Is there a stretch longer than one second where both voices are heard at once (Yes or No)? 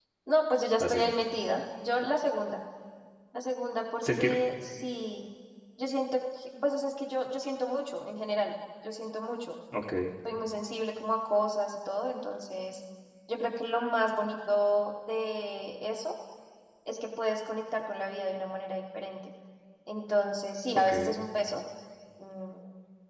No